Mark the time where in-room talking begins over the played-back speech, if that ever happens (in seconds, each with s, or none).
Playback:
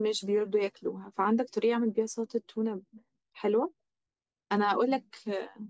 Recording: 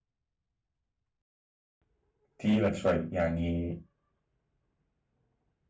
2.4 s